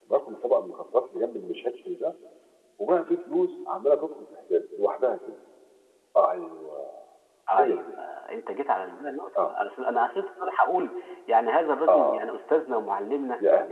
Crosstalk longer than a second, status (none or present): none